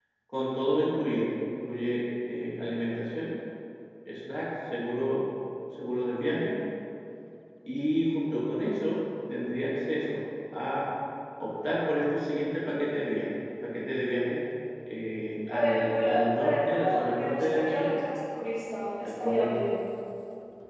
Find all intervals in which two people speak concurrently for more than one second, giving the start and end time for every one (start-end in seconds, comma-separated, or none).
15.5-18.0